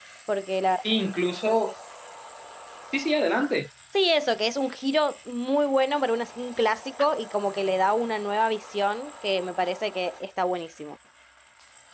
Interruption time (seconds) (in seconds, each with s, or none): none